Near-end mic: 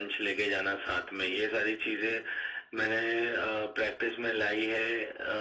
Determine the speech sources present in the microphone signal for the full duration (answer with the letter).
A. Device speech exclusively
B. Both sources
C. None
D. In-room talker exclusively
A